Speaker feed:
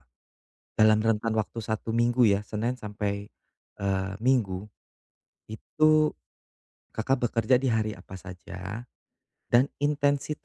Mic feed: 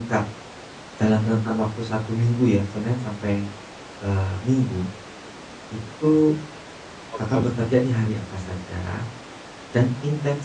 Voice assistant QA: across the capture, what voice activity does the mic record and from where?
both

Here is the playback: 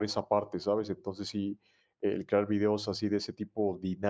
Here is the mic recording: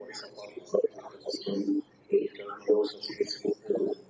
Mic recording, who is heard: echo only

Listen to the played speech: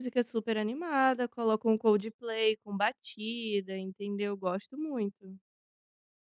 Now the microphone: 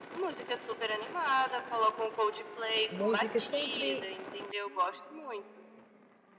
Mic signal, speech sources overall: both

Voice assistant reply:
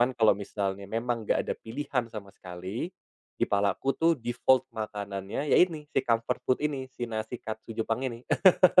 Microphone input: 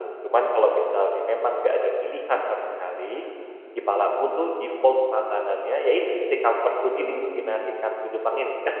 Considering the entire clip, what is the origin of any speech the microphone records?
both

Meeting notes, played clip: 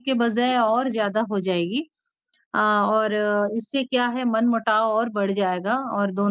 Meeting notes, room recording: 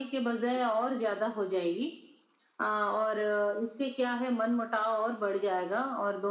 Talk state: echo only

